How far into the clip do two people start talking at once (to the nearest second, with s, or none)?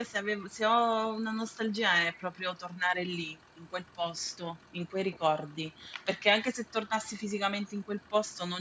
none